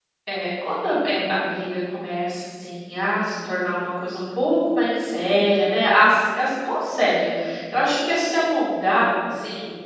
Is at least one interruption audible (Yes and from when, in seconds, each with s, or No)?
No